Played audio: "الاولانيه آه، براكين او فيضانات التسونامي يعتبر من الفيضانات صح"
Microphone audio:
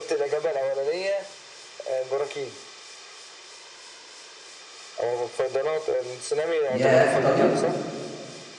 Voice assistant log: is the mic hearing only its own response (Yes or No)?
No